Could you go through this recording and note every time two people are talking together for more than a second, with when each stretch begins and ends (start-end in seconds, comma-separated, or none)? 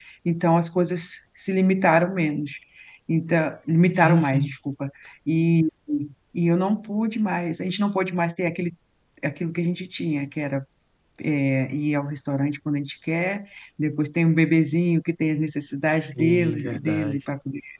15.9-17.2